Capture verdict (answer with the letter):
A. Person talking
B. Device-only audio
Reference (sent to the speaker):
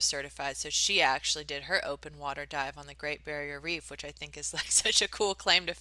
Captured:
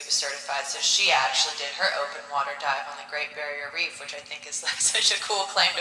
B